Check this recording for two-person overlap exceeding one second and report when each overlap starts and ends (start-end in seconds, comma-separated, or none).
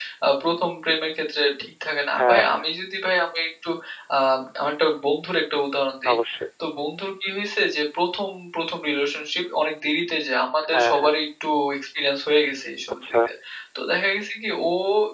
none